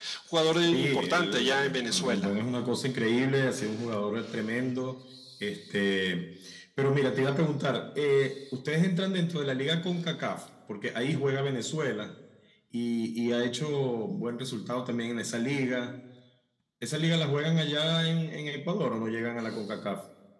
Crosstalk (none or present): present